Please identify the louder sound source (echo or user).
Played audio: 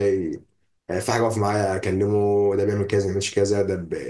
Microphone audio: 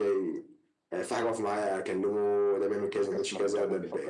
echo